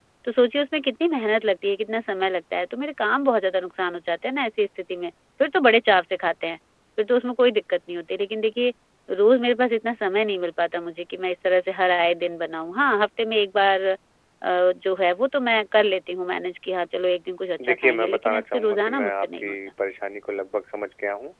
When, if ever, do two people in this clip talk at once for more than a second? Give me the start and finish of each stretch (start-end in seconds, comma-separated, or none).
17.6-19.6